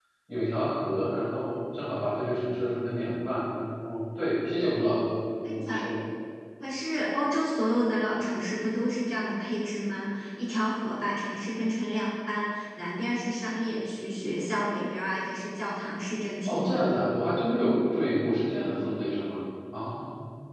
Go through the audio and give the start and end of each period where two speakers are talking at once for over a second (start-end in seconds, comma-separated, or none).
none